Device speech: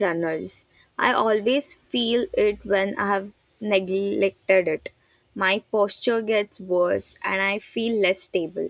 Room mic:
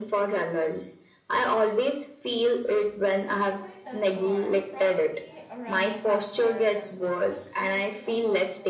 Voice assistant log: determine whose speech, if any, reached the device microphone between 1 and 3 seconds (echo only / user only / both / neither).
echo only